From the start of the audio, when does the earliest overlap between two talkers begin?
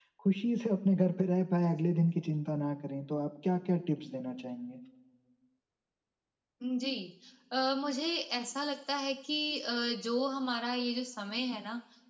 none

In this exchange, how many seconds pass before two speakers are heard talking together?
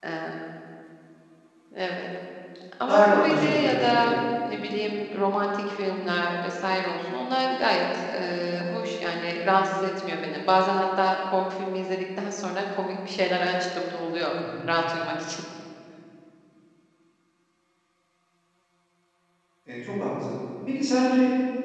2.9 s

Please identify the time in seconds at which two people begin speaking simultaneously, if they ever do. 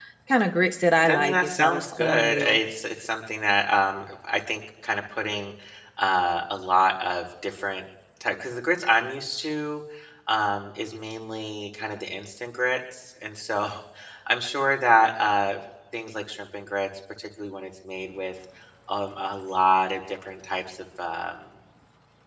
1.1 s

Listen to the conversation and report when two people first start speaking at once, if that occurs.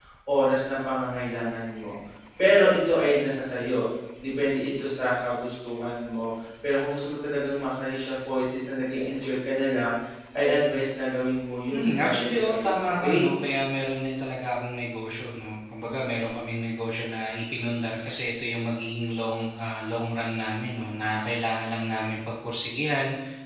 11.7 s

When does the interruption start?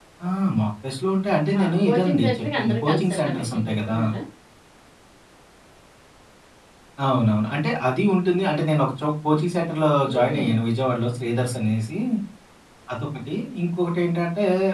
1.5 s

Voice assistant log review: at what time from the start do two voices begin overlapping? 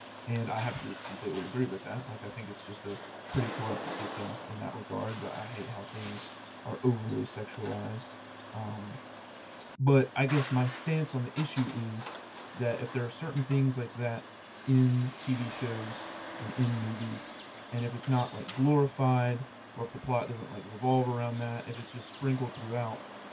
none

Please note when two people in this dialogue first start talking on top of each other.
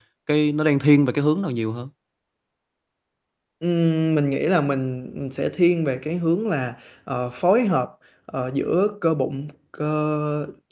none

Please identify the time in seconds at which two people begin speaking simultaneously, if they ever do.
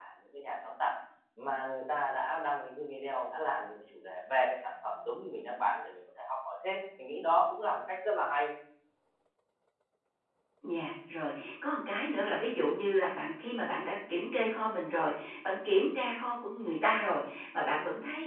none

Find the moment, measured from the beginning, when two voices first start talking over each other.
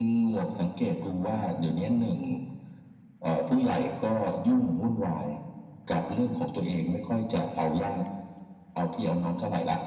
none

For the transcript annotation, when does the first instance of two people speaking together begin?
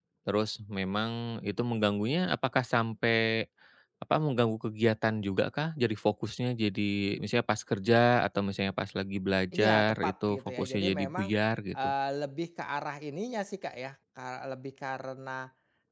9.5 s

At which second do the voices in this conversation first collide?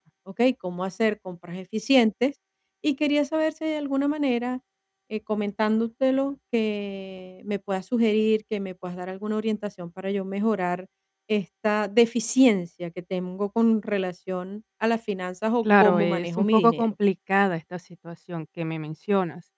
15.6 s

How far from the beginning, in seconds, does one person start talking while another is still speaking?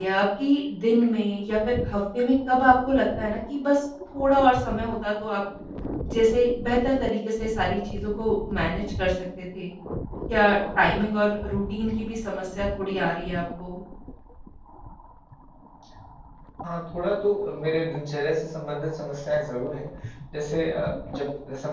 none

